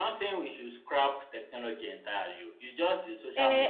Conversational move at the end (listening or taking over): taking over